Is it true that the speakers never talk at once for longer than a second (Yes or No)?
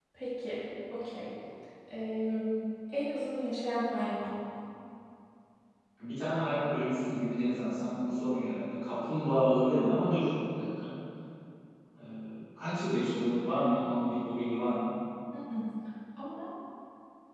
Yes